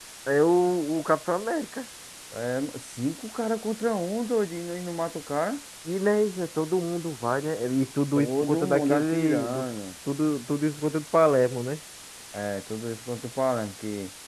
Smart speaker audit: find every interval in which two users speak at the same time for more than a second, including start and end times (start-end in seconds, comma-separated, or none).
8.2-9.6